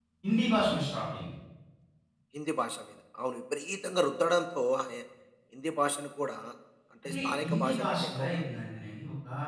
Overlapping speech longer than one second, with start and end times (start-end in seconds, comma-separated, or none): 7.0-8.4